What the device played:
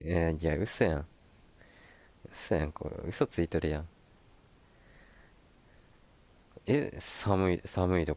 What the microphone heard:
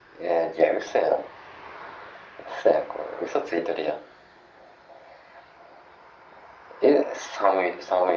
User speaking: No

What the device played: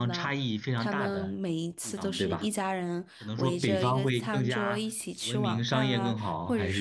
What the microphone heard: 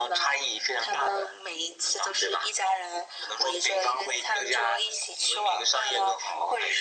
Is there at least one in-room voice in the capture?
No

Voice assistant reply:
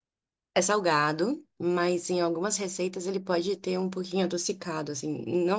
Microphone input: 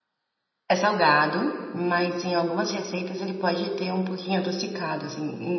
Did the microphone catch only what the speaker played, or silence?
Yes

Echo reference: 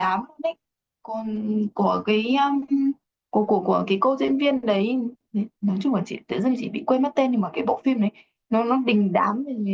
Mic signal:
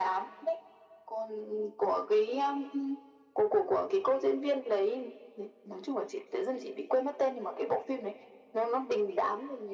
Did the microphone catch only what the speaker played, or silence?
Yes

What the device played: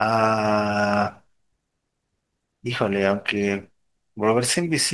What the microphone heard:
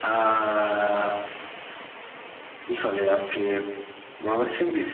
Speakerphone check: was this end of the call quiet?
Yes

